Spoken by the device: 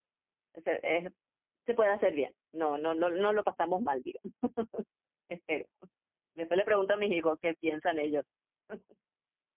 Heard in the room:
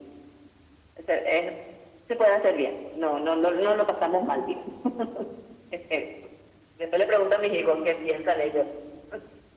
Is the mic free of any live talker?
Yes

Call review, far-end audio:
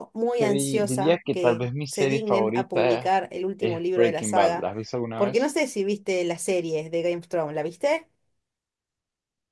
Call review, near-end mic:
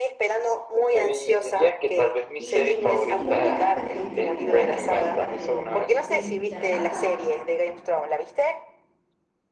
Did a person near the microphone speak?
Yes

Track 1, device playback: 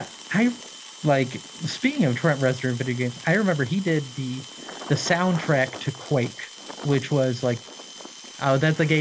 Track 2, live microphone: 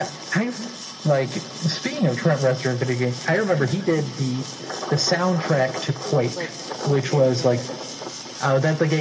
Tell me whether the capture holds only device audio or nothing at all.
No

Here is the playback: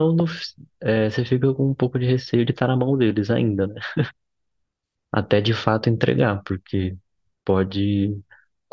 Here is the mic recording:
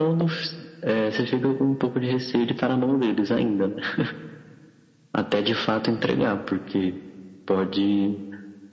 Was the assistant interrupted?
No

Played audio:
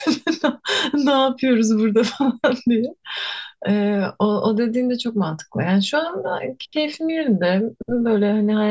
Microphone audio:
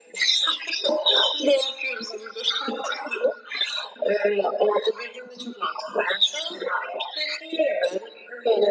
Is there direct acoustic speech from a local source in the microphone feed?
No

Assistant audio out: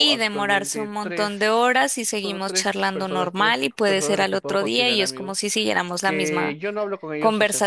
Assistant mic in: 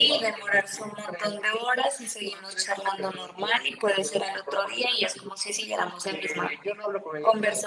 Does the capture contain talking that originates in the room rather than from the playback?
No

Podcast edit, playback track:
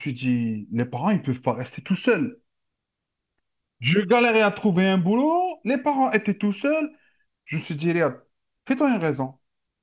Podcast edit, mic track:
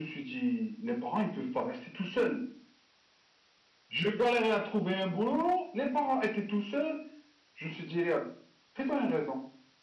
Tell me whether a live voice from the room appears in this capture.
No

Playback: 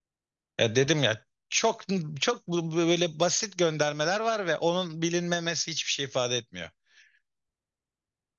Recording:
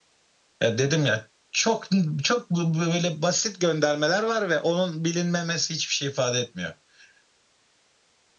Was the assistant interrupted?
No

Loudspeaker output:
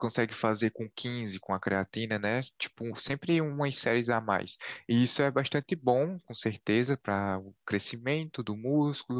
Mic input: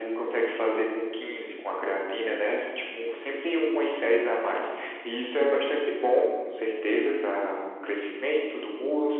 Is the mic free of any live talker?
Yes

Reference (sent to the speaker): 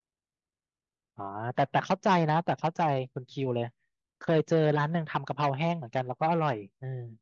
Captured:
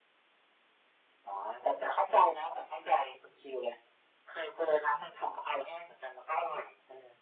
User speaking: No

